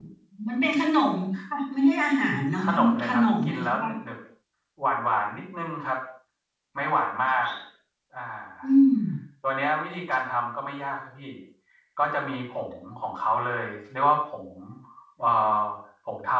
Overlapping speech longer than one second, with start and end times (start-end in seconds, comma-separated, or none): 2.6-3.9